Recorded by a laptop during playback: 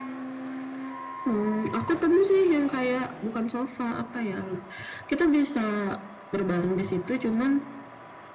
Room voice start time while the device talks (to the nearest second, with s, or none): none